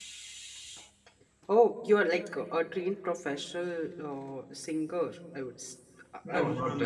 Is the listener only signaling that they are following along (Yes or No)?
No